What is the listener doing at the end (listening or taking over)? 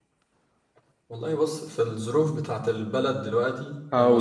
listening